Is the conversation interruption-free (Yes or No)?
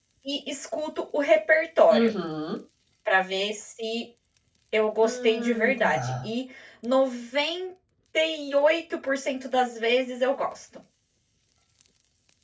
No